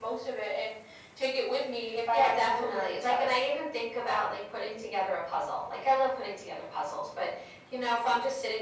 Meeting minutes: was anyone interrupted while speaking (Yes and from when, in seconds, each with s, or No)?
Yes, from 2.1 s